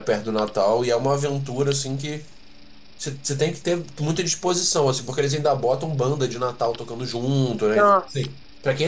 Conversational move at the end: listening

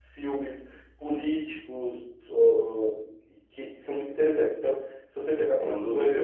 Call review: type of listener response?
listening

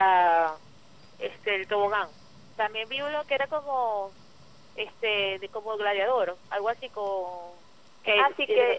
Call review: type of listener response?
taking over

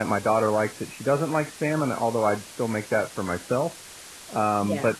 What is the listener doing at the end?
listening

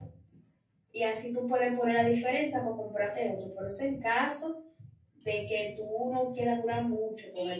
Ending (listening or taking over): taking over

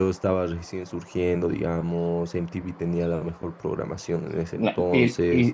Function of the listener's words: taking over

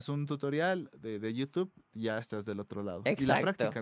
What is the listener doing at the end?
taking over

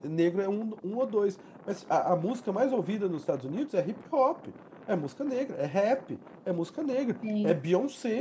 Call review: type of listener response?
listening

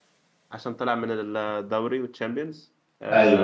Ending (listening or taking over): listening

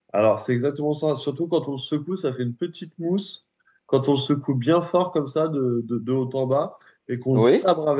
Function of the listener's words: listening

